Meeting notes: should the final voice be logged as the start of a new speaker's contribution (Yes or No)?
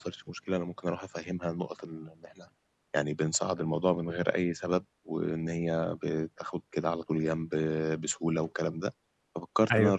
No